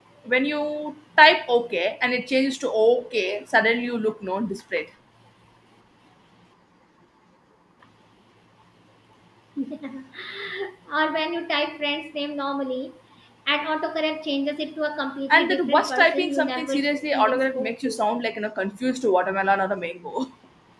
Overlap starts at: 15 s

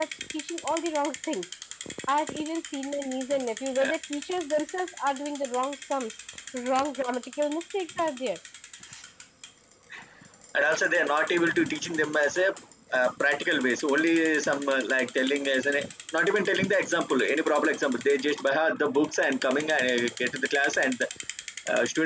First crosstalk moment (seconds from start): none

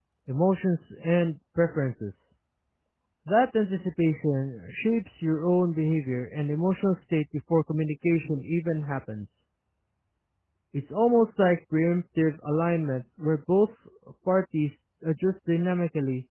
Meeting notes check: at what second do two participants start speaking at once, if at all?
none

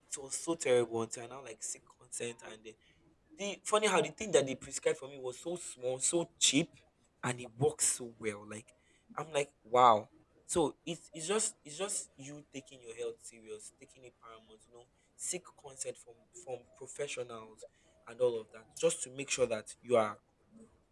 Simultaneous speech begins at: none

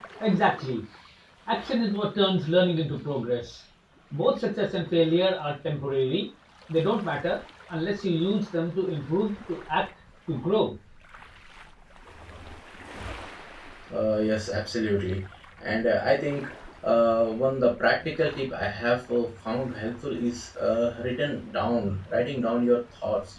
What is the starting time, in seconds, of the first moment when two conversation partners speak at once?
none

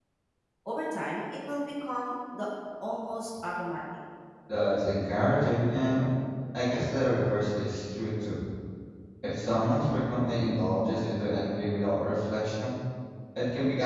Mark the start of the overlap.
none

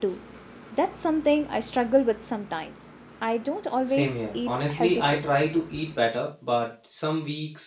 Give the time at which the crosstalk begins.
4 s

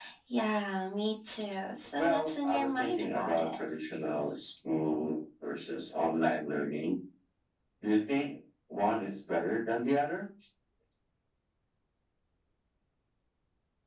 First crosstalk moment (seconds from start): 2 s

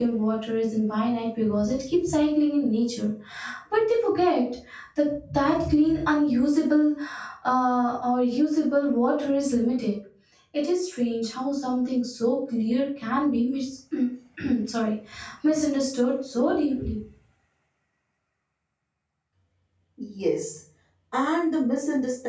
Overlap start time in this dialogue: none

